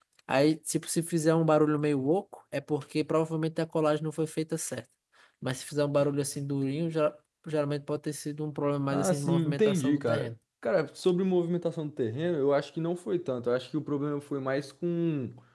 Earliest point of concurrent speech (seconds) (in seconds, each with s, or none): 8.9 s